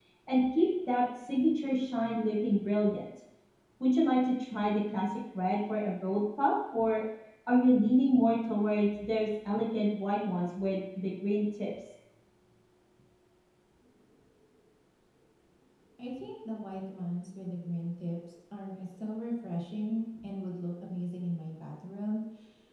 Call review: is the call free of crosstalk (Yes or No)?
Yes